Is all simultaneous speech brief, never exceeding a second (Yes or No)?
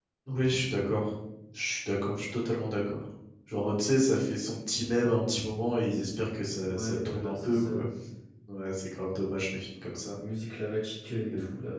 No